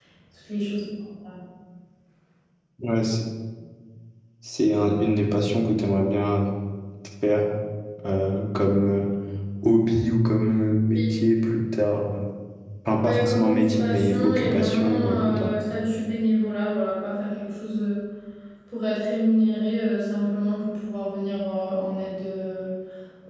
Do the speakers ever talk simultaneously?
Yes, from 13.0 s

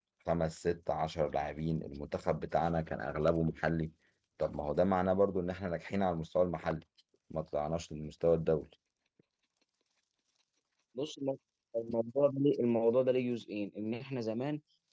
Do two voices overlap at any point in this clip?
No

